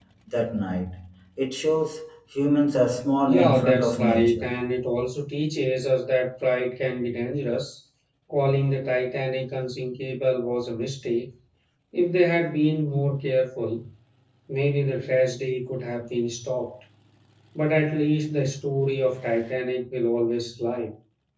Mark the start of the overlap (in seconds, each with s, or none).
3.3 s